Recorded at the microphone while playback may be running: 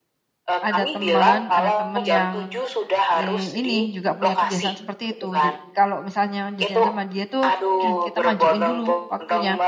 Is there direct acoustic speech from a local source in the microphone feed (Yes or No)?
Yes